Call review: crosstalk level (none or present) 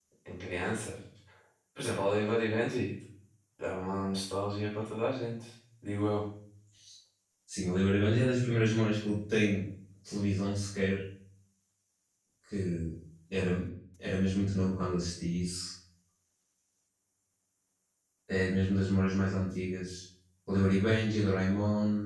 none